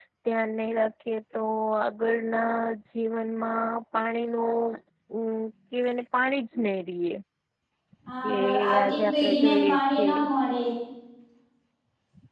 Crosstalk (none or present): present